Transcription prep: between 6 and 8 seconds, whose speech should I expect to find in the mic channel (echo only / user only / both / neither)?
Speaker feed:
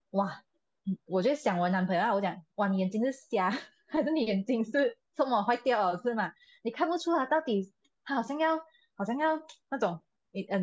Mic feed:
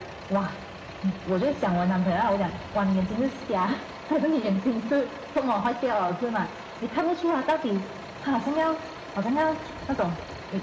echo only